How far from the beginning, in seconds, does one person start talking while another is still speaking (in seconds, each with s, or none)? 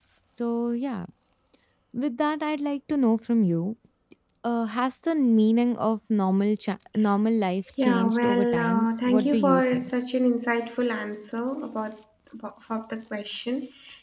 7.8 s